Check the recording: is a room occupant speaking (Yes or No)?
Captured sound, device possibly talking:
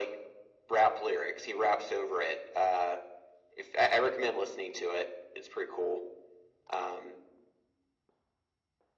No